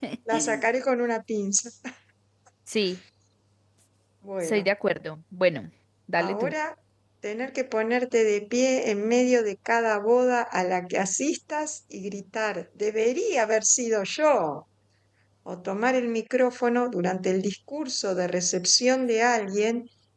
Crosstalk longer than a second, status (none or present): none